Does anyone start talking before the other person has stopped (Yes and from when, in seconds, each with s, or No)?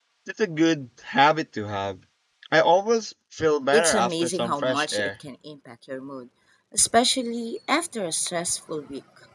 Yes, from 3.7 s